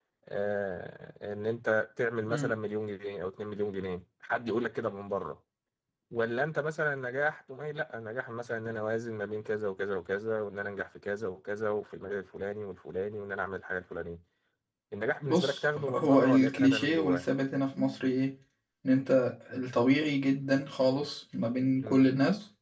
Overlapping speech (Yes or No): Yes